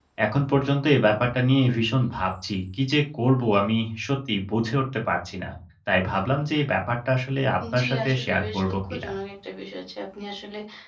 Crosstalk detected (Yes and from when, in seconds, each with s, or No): Yes, from 7.6 s